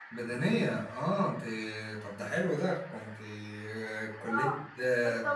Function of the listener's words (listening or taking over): taking over